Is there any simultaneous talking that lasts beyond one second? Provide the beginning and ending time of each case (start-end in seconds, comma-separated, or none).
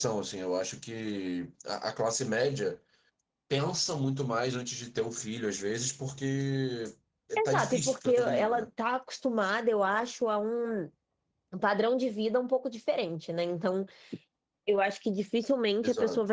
7.4-8.7